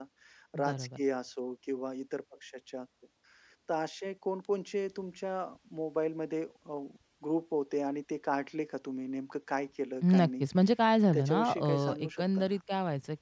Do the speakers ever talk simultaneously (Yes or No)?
Yes